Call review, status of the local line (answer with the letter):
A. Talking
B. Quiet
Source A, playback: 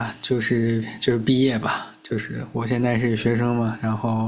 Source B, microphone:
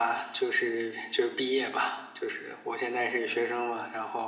B